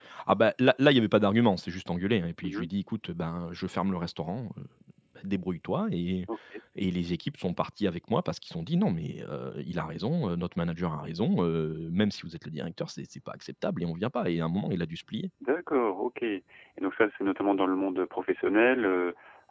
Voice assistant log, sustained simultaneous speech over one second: none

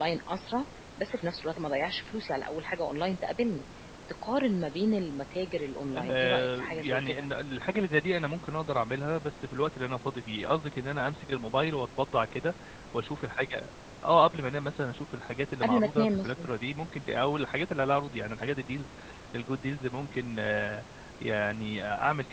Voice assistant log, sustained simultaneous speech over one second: present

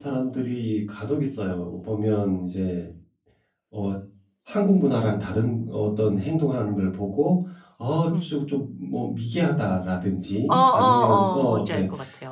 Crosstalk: present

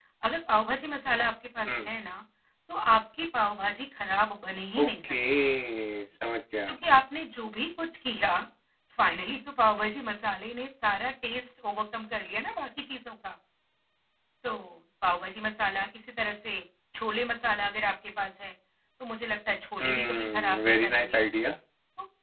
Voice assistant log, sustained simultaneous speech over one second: present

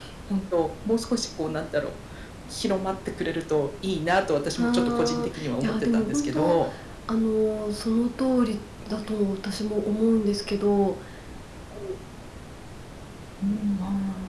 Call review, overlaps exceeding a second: present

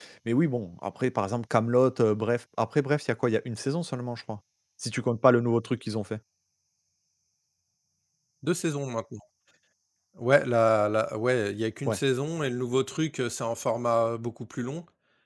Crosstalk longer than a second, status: none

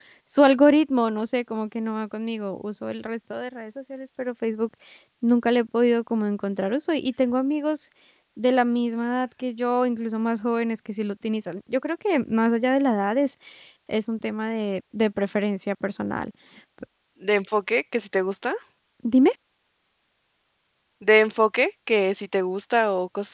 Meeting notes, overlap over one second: none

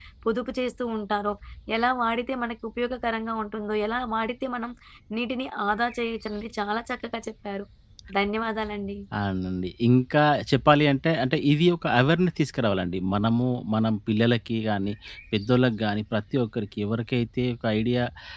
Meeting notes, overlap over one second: none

